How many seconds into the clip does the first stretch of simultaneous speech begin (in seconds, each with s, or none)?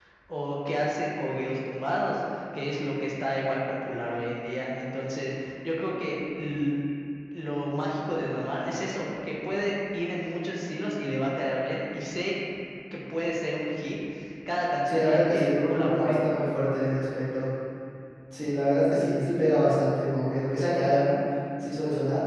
14.9 s